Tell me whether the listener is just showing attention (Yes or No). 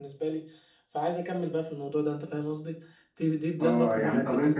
No